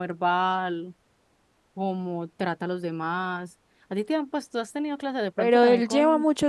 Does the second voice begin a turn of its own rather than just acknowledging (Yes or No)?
Yes